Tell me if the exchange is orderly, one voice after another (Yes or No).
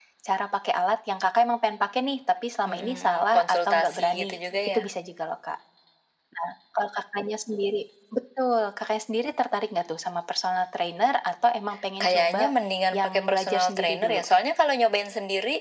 No